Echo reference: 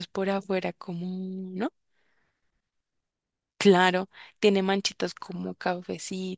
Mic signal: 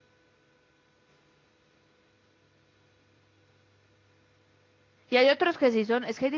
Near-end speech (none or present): present